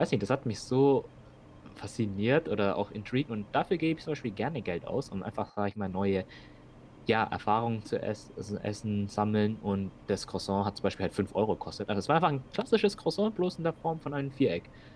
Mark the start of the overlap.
none

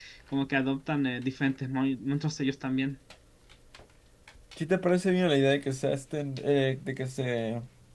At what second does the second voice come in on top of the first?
none

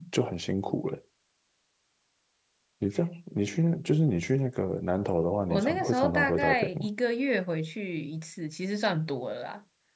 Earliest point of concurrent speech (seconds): 5.5 s

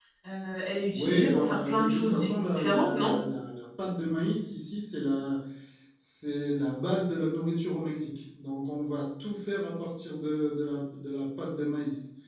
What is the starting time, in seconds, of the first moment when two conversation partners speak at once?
0.9 s

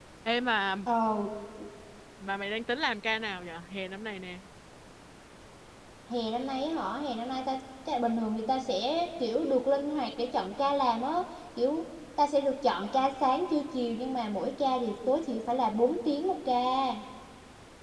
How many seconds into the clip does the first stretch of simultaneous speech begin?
none

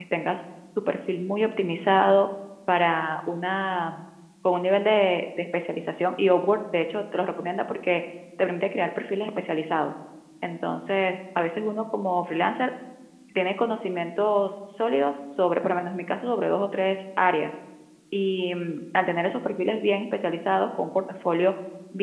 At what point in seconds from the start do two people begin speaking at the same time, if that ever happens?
none

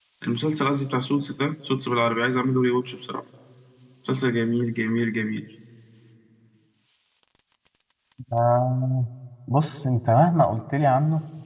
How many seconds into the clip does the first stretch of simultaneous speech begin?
none

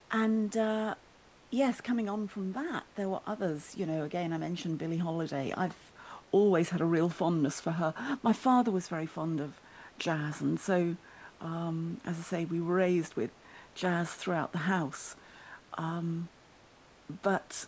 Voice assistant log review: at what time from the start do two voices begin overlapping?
none

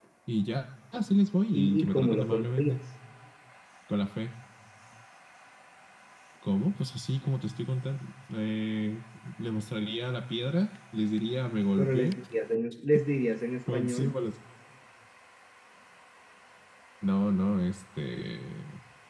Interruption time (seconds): 1.5 s

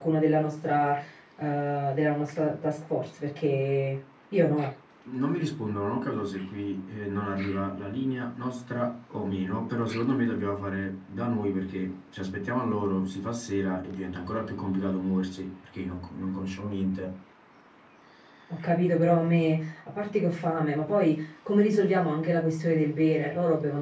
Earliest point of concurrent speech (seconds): none

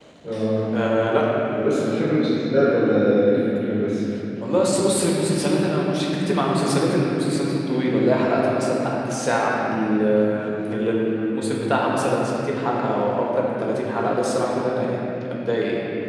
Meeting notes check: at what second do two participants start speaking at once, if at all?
none

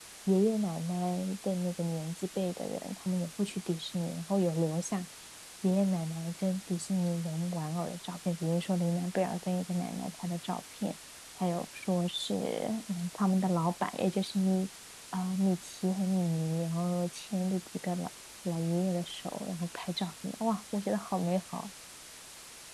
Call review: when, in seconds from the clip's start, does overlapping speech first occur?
none

